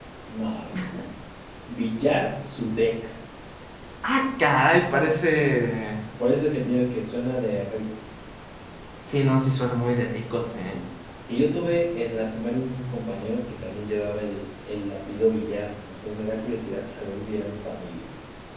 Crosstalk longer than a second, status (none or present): none